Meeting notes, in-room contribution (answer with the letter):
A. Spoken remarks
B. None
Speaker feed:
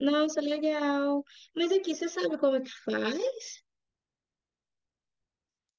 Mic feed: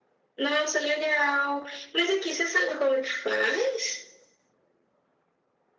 B